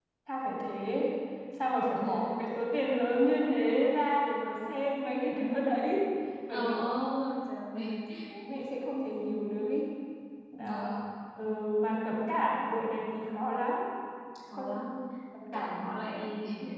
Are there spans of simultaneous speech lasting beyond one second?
Yes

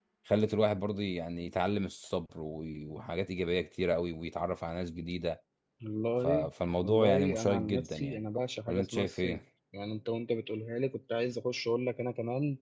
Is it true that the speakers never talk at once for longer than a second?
No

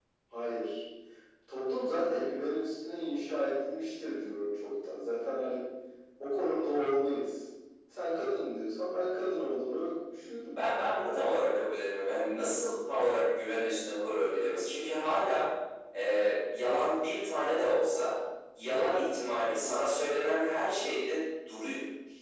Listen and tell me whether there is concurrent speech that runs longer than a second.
No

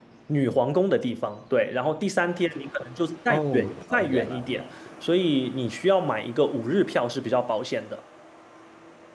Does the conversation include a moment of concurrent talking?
Yes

